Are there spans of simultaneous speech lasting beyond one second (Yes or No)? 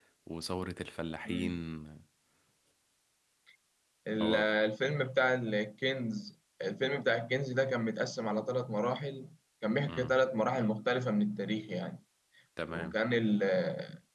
No